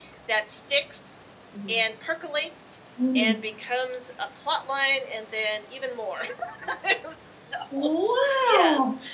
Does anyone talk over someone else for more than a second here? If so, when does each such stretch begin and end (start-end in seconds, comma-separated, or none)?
none